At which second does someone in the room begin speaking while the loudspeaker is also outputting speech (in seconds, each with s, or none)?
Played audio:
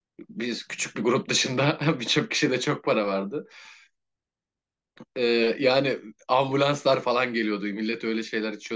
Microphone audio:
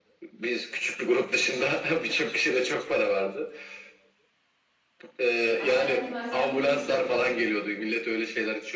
5.6 s